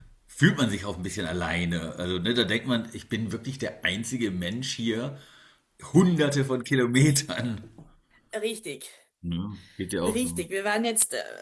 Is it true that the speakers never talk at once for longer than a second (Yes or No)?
Yes